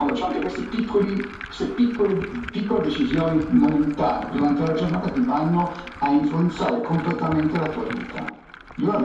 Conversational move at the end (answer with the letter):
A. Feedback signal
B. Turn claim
B